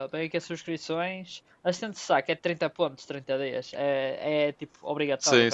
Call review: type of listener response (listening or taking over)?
taking over